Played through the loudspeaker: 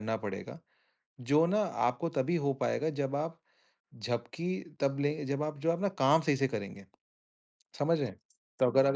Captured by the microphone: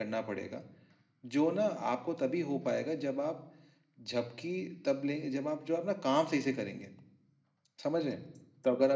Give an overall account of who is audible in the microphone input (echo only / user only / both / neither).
echo only